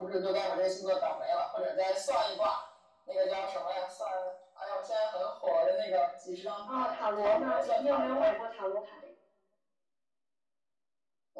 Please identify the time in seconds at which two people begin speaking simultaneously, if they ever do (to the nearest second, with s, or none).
7 s